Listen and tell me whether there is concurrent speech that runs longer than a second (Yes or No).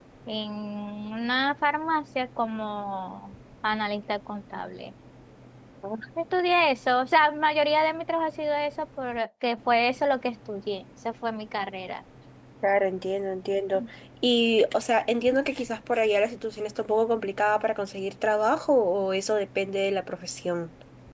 No